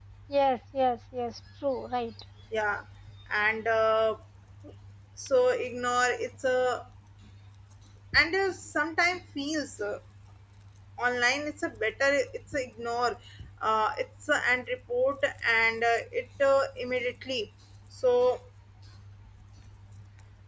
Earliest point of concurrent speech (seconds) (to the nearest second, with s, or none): none